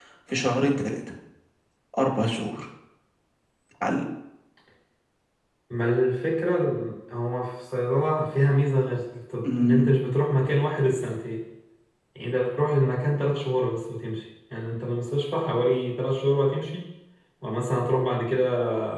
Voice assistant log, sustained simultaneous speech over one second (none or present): none